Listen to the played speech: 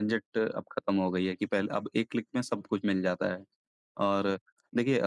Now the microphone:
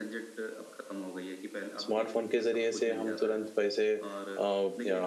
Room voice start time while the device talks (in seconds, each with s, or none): 1.8 s